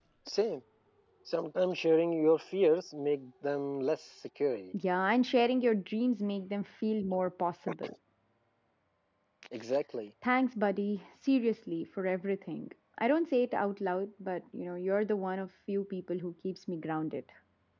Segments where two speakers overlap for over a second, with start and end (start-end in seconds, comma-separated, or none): none